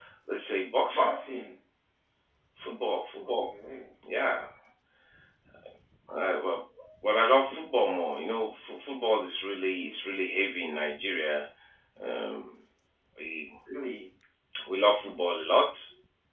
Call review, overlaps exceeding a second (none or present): none